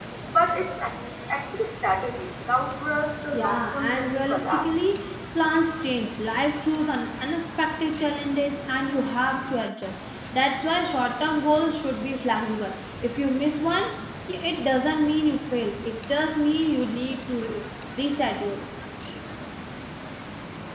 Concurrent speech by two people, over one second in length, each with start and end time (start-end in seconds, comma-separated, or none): 3.3-4.7